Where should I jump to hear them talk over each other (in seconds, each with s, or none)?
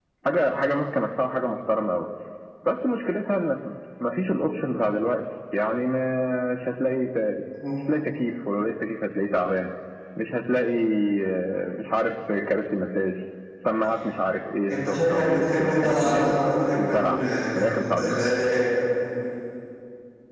14.7 s